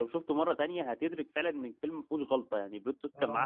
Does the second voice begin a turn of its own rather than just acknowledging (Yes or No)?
Yes